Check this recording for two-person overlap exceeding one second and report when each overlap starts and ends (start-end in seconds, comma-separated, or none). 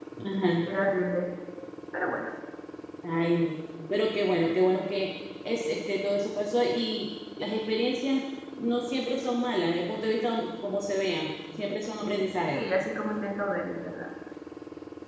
none